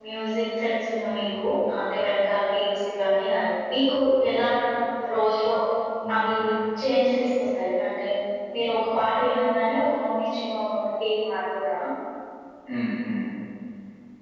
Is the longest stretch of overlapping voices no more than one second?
Yes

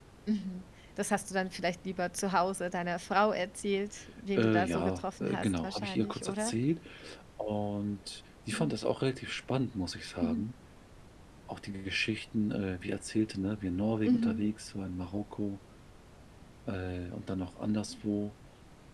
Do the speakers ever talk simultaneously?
Yes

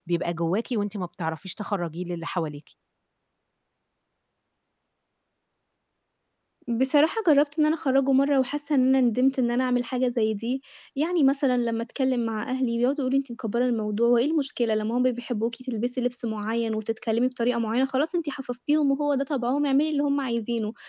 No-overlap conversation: Yes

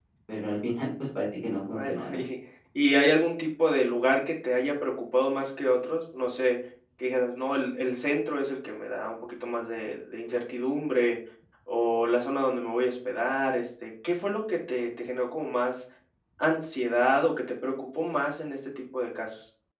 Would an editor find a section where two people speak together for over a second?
No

